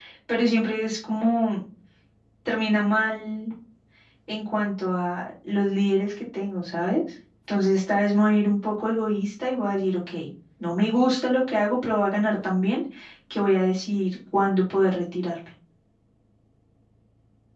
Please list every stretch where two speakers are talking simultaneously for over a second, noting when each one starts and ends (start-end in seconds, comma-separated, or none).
none